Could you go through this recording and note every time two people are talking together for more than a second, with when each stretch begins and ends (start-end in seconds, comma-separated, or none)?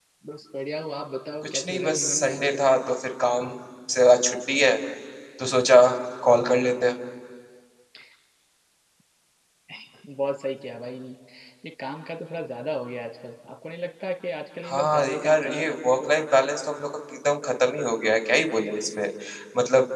1.4-2.7, 14.6-16.1